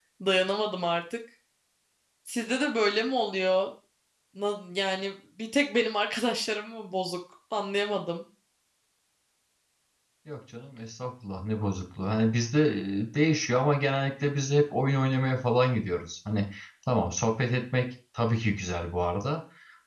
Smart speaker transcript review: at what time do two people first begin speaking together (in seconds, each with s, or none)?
none